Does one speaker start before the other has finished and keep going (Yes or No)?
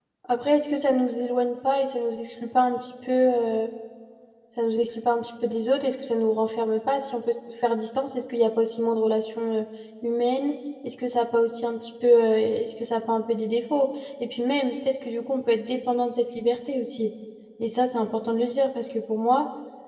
No